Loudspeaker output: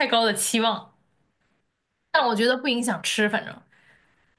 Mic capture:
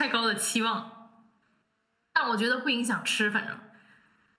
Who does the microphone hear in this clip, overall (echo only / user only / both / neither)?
echo only